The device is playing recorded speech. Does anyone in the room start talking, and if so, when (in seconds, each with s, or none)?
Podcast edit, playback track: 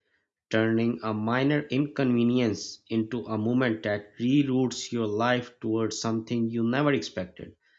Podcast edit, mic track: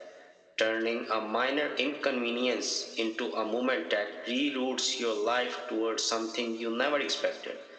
none